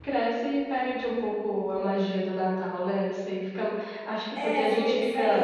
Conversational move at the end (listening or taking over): taking over